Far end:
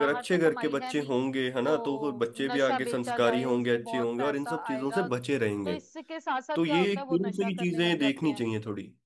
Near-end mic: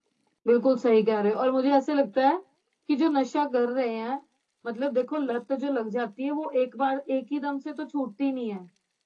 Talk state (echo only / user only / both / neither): user only